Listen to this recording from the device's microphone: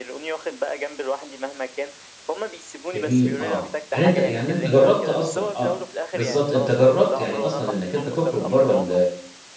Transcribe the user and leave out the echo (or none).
جميل آه، يعني أنت يعني أنت جرّبت أصلًا آه، بالضبط أنت جرّبت يعني أصلًا إنّك أنت تخرج برّه ال